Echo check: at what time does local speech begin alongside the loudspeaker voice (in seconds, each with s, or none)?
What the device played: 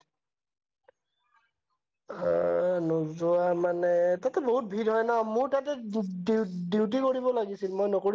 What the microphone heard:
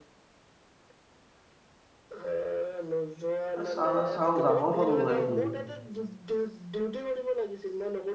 3.6 s